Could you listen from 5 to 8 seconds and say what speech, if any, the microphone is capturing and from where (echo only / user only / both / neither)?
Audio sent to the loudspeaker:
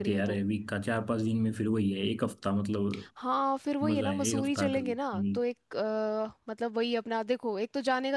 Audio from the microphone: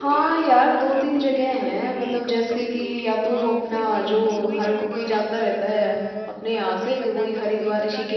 both